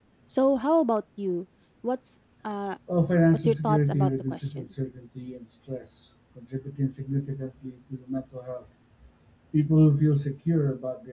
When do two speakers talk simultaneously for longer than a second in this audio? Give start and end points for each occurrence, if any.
3.3-4.7

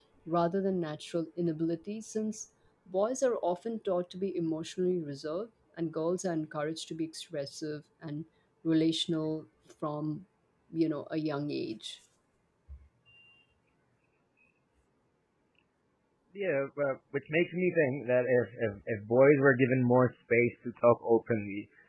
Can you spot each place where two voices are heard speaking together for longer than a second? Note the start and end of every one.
none

